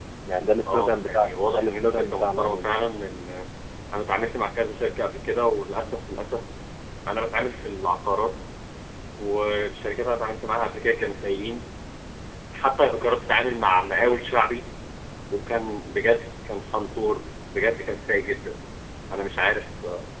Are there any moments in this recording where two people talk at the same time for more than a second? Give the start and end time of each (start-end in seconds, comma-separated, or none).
0.7-2.7